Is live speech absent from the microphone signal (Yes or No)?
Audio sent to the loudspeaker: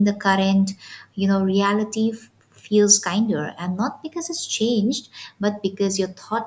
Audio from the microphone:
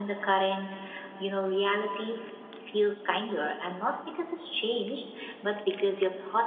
Yes